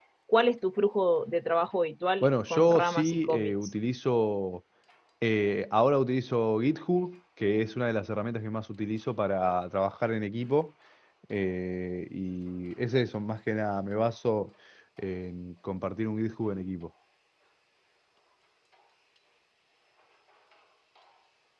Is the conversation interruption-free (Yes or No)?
No